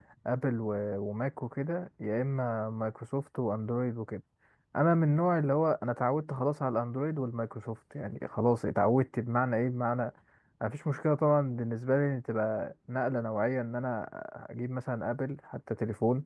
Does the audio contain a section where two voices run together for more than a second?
No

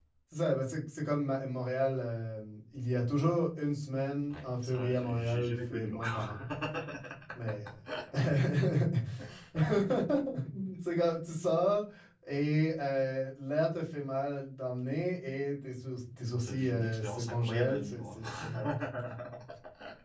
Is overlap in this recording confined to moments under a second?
No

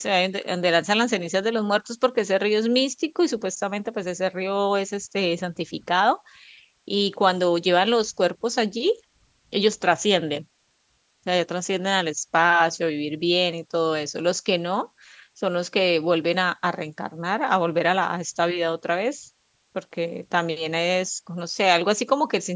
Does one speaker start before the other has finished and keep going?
No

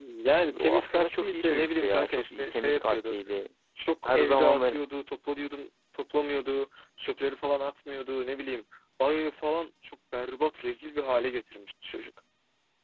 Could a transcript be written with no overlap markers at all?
No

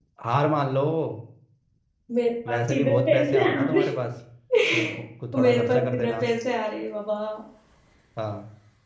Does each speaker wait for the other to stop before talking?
No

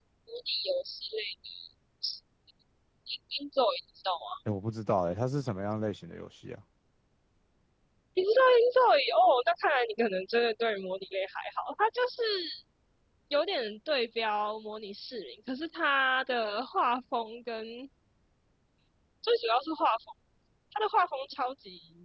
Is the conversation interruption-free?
Yes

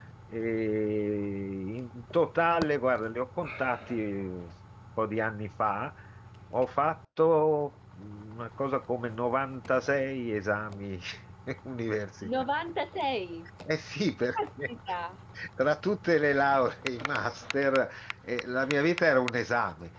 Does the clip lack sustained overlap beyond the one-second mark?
Yes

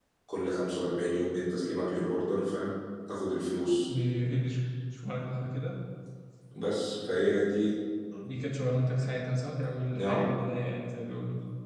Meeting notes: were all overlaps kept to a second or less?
Yes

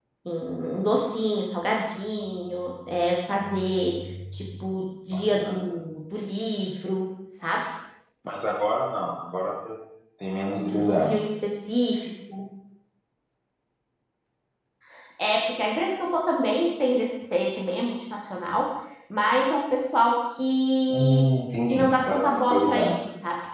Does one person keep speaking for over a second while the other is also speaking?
Yes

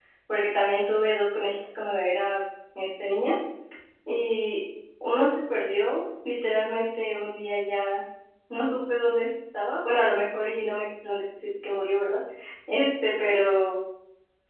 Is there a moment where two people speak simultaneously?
No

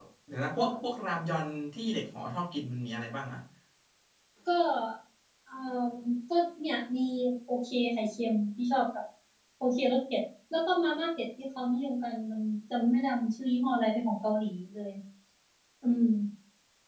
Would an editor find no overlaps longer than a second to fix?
Yes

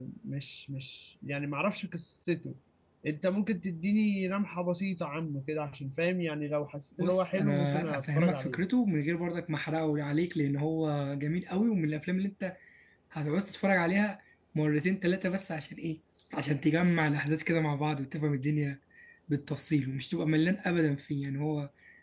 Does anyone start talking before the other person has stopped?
Yes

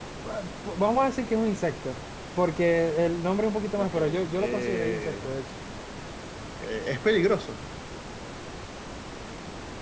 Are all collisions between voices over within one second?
No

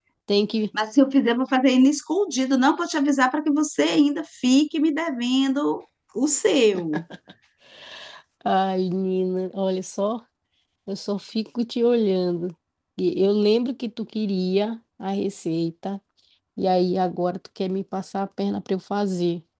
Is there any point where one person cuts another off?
No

